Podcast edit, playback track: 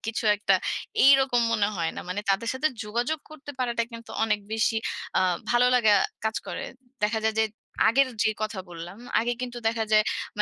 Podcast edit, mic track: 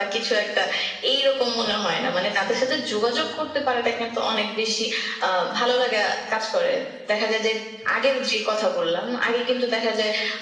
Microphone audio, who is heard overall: echo only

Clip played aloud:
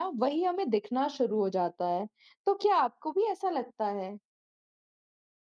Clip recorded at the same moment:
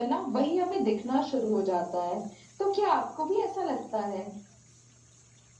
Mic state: echo only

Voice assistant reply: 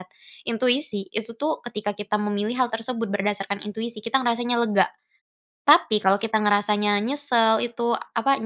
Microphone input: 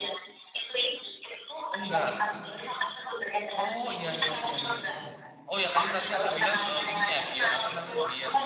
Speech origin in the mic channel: both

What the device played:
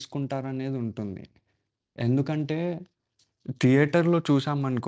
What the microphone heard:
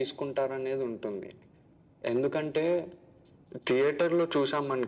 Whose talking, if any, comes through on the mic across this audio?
echo only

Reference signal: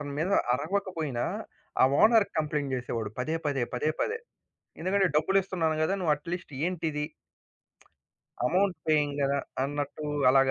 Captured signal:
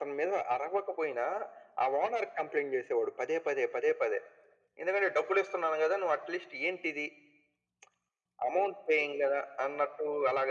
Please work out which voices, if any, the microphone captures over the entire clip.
echo only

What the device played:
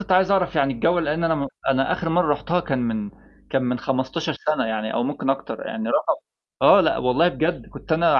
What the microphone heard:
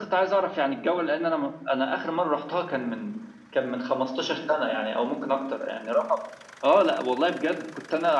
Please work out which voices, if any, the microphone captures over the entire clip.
echo only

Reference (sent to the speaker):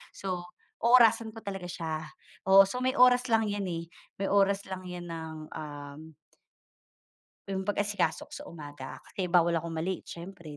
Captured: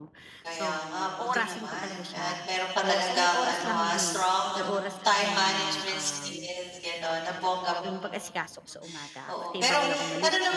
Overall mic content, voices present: both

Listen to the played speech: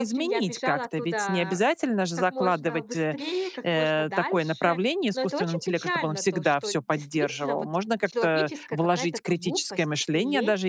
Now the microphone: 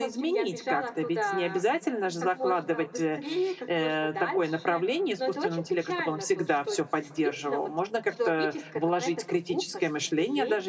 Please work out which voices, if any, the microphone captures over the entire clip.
echo only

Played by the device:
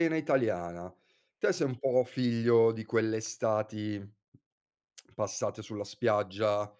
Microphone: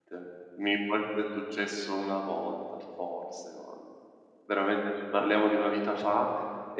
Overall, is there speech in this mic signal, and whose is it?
user only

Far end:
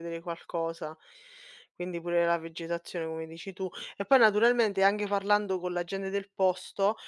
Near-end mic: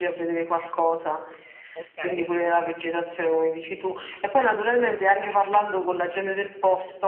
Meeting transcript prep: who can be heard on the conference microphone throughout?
both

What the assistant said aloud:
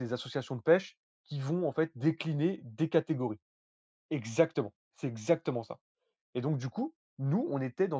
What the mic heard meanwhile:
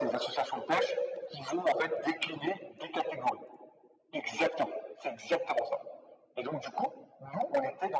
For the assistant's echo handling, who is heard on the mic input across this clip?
echo only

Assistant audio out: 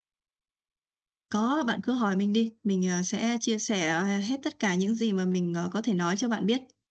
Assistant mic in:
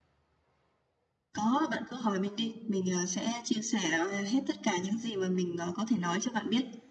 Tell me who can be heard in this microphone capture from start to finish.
echo only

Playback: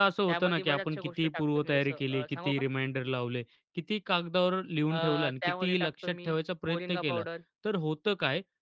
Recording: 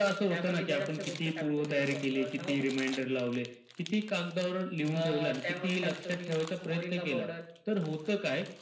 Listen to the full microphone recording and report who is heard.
echo only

